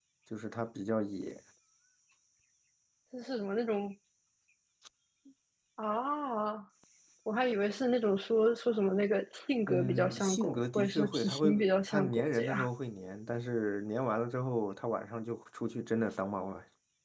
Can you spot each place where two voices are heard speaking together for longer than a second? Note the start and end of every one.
9.7-12.7

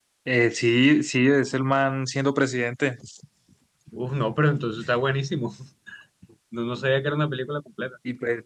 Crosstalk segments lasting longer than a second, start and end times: none

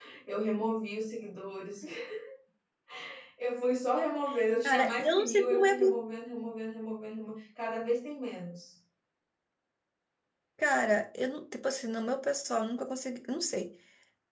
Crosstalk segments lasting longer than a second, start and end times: 4.6-6.0

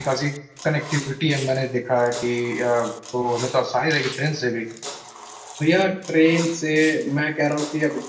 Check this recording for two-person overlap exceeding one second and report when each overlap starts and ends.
none

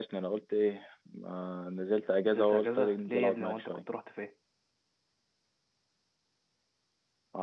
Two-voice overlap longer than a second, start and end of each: 2.2-3.8

